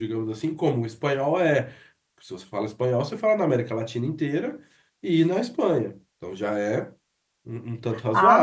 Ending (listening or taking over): taking over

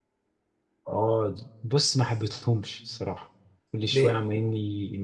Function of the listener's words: listening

